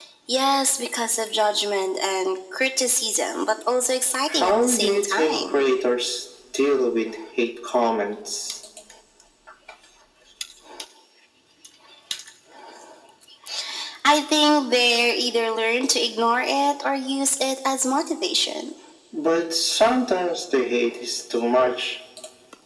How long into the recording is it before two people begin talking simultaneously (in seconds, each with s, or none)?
4.3 s